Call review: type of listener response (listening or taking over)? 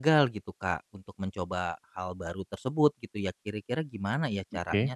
listening